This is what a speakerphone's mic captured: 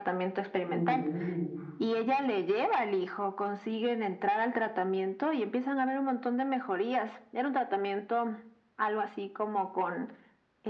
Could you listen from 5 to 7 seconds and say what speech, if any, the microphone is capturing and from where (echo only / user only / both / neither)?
echo only